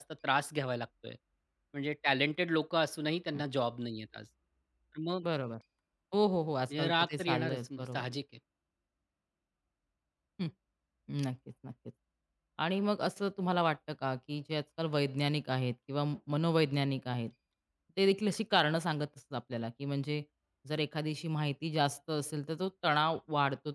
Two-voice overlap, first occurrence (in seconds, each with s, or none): 6.8 s